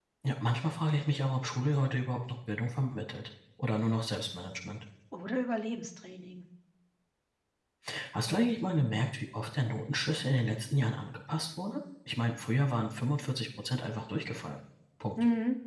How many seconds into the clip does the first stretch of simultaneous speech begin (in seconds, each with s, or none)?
none